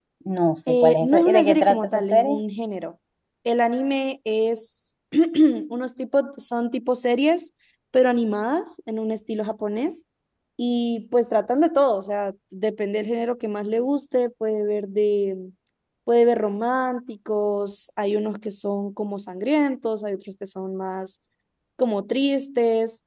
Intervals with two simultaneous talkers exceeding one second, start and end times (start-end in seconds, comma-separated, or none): 0.7-2.4